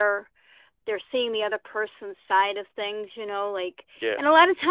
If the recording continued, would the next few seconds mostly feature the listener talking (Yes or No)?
No